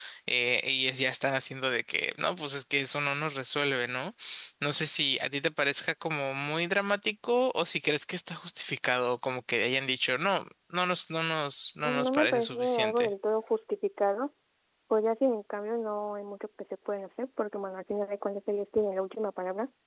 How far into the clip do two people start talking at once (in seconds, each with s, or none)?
11.8 s